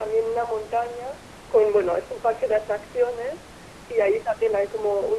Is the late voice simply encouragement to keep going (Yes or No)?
Yes